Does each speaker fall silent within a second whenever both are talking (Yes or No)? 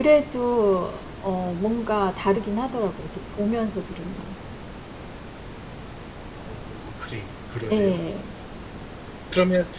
Yes